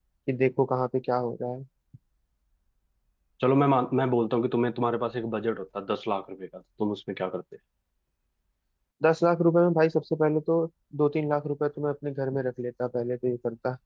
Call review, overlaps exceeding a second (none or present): none